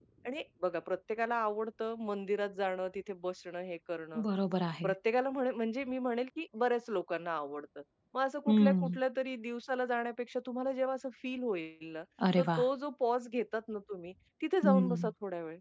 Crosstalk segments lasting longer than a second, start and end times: none

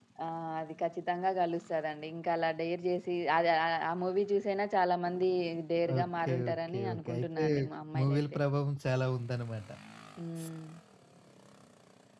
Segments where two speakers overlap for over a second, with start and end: 6.0-7.4

